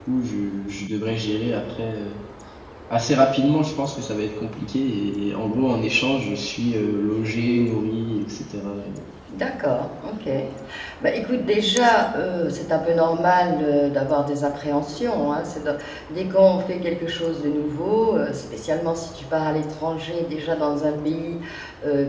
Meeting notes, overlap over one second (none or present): none